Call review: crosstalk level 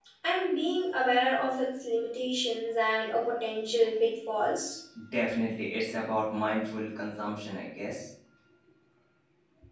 none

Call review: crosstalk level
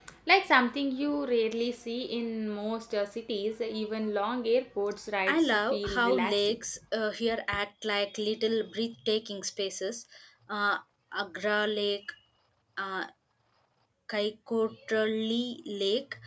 present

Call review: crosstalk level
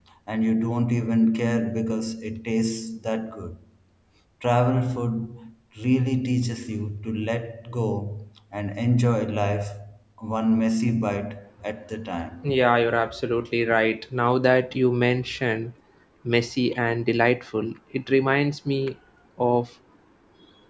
none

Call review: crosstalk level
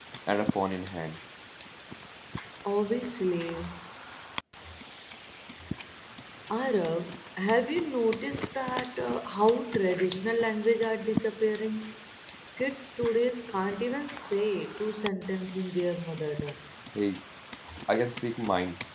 none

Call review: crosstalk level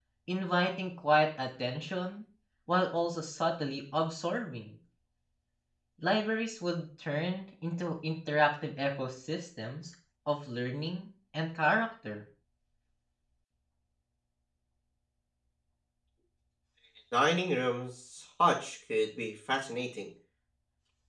none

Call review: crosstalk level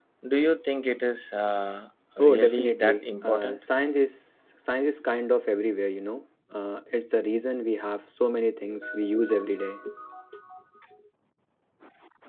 present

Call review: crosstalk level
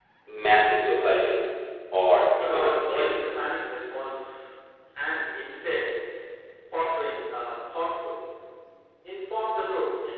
present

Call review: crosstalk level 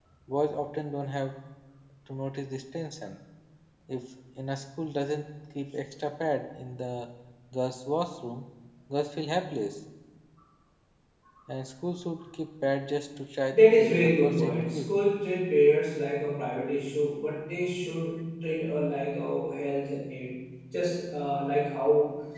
present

